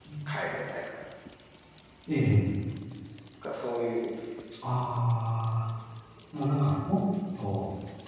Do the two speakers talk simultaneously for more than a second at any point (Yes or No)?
No